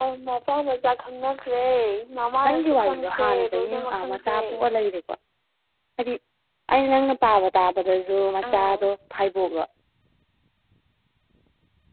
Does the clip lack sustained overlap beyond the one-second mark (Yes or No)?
No